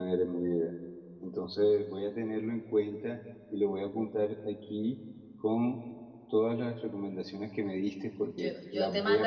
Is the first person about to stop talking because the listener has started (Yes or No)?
Yes